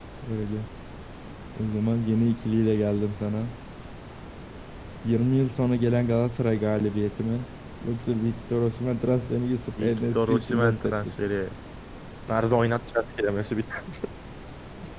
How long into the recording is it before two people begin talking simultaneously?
10 s

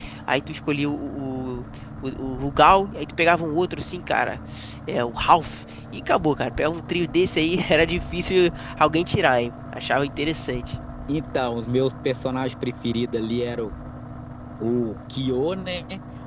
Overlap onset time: none

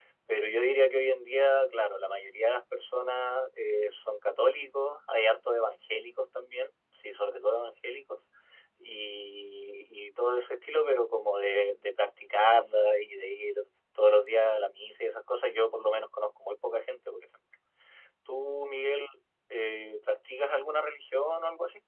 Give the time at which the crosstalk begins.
none

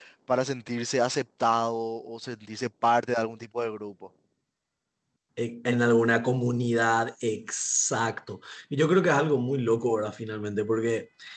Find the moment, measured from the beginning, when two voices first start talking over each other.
none

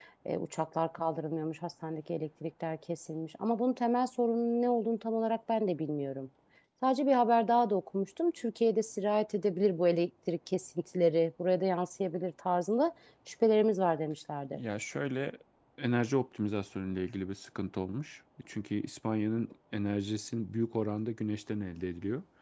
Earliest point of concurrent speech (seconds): none

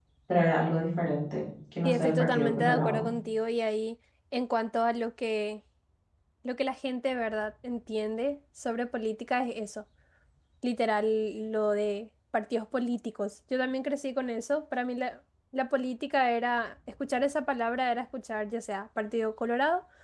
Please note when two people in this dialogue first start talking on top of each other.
2 s

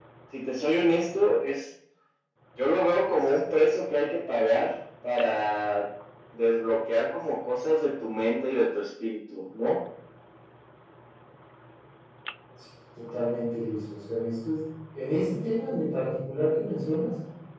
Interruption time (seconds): none

